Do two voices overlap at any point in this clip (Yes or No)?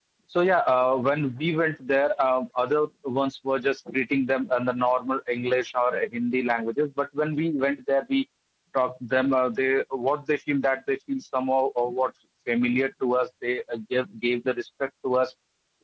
No